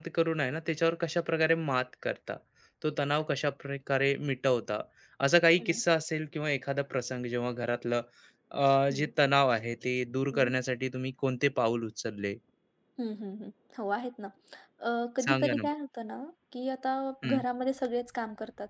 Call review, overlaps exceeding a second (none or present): none